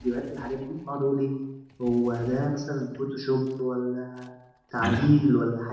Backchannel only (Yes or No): Yes